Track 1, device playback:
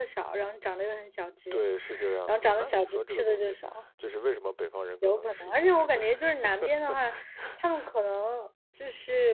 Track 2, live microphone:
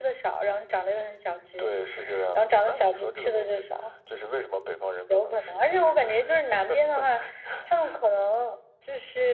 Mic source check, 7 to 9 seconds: echo only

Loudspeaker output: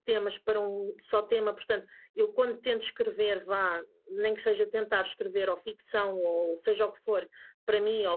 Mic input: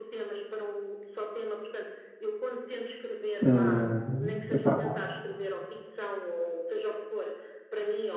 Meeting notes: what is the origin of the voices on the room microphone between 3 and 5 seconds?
both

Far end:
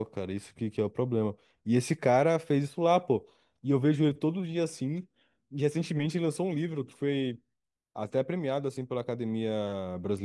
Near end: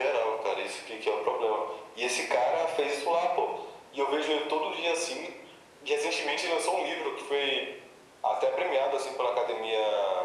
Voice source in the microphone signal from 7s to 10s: echo only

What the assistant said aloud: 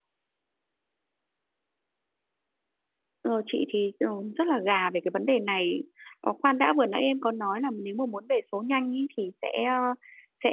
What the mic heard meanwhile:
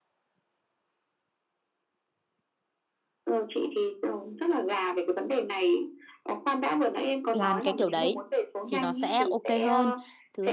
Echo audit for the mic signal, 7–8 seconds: both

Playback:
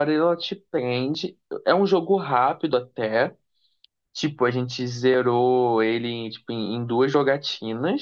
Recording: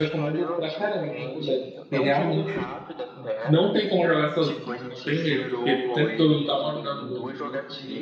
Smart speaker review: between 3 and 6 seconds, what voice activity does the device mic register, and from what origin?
both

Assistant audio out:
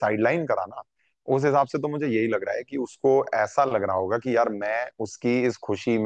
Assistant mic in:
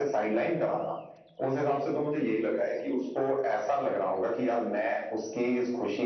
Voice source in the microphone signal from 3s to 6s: echo only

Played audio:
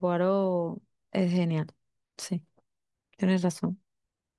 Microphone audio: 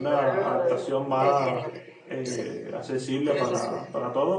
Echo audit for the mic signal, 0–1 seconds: both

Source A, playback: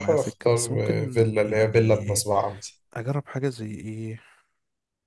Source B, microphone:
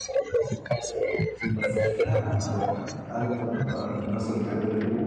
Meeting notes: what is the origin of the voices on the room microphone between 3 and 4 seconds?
both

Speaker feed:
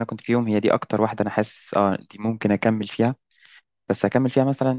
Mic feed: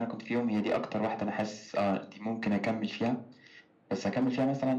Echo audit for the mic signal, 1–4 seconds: echo only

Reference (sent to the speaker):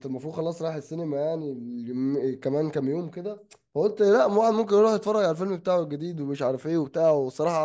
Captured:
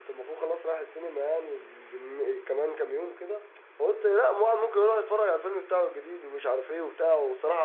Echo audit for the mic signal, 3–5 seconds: echo only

